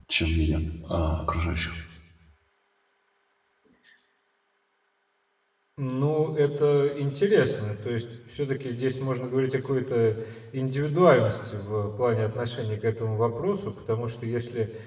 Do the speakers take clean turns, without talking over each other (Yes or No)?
Yes